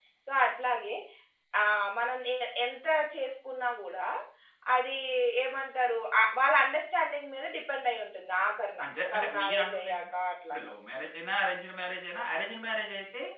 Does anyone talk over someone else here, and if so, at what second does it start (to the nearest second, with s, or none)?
9 s